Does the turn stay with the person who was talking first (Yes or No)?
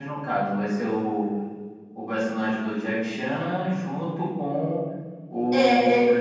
No